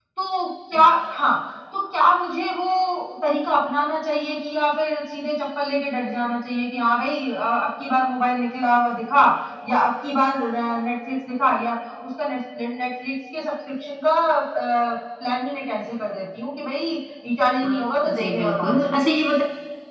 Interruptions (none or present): present